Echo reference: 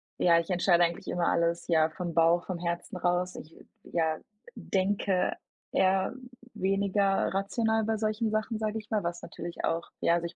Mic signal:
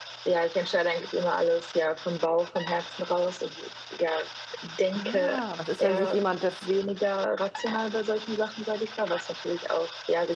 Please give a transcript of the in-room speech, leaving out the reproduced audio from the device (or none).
Ah, was ist, wenn sich jemand das